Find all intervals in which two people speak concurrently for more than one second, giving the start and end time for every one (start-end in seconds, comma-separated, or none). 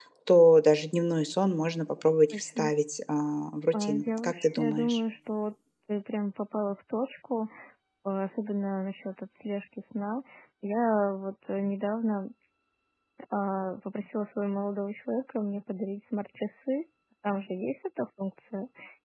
3.7-5.0